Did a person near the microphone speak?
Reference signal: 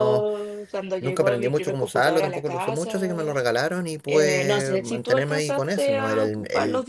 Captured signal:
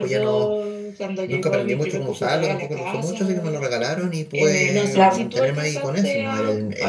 Yes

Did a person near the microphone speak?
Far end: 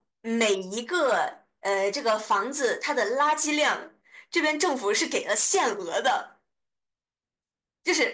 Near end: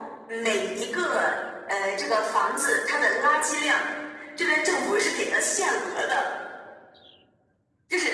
No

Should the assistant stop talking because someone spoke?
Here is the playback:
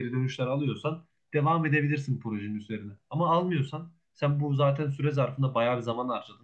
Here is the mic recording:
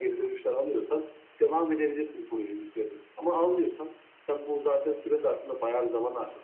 No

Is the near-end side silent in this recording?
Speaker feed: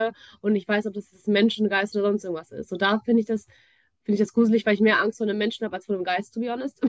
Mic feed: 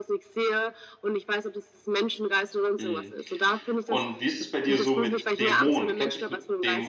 No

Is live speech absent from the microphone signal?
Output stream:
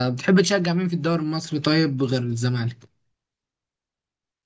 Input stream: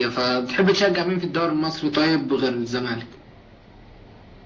Yes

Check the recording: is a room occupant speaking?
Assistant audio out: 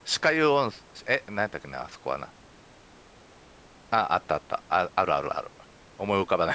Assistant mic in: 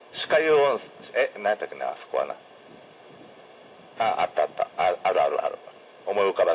No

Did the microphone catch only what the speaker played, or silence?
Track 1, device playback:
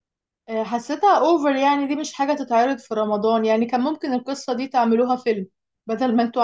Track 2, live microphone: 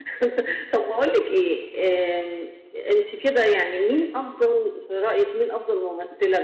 No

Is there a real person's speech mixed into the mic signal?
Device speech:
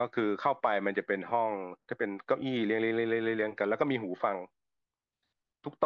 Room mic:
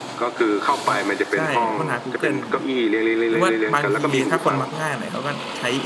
Yes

